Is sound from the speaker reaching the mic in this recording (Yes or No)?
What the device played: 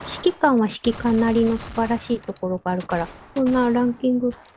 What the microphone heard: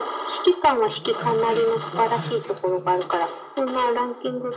Yes